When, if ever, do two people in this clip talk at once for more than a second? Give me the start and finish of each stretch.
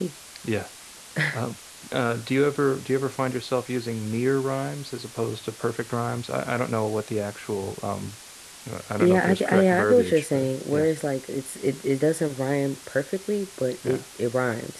9.0-10.9

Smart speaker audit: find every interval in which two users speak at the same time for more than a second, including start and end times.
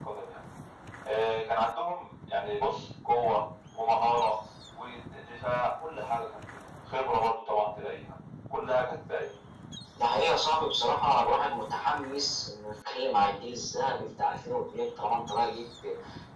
none

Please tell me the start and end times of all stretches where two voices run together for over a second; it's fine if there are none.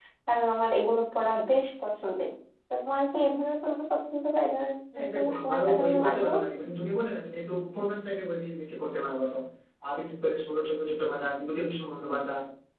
5.0-6.4

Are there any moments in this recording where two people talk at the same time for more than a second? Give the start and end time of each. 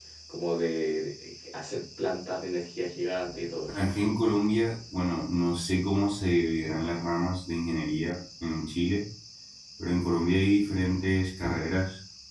none

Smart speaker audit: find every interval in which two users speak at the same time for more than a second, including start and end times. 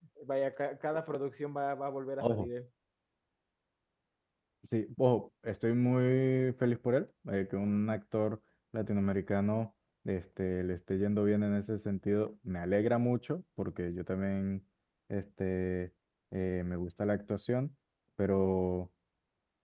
none

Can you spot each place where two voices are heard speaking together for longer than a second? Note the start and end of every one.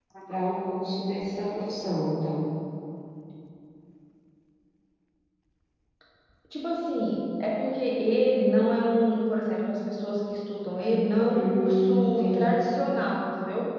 11.3-12.6

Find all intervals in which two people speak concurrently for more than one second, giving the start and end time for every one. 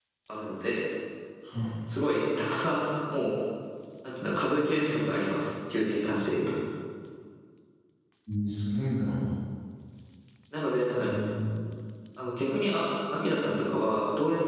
none

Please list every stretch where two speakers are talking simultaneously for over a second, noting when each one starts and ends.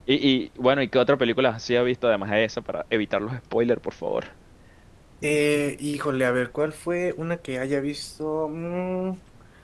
none

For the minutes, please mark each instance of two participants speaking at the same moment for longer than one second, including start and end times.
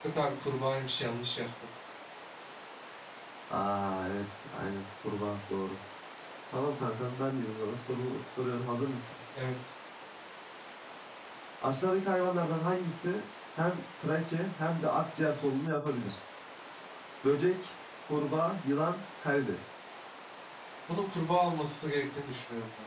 none

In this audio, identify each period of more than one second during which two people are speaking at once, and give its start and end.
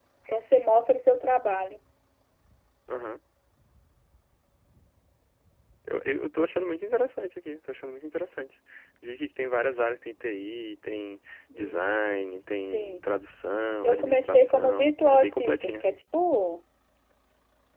13.8-15.9

